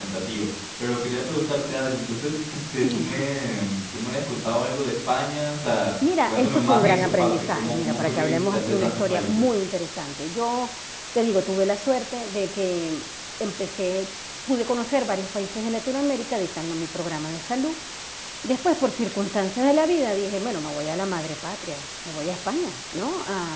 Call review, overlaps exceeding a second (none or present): present